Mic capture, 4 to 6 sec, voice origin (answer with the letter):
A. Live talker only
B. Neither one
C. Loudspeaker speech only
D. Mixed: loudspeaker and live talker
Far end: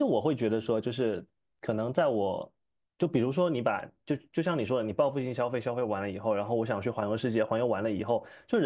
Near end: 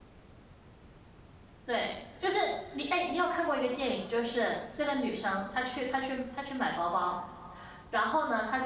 A